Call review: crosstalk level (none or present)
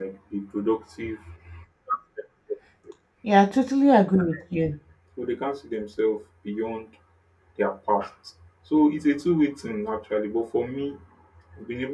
none